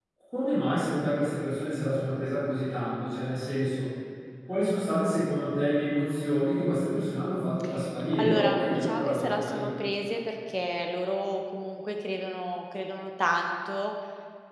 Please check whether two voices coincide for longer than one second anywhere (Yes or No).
Yes